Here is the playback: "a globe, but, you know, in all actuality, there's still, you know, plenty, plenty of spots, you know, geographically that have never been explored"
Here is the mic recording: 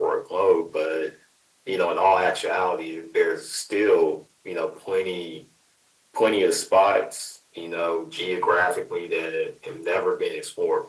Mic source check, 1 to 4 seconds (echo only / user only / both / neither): echo only